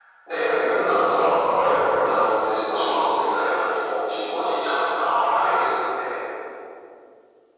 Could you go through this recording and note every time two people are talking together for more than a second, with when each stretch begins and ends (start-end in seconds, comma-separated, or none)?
none